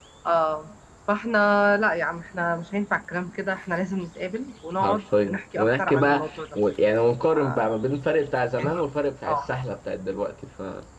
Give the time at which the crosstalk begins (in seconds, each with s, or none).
4.8 s